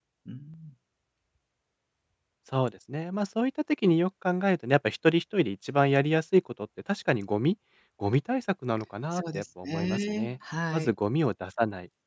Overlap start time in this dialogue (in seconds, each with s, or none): 9.1 s